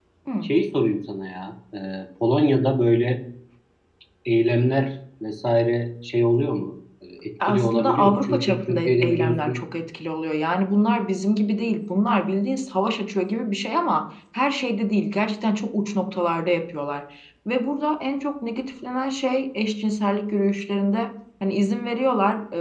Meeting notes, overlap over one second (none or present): present